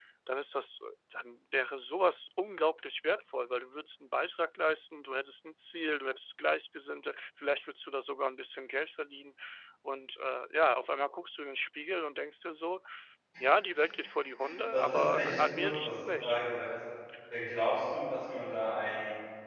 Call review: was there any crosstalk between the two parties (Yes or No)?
Yes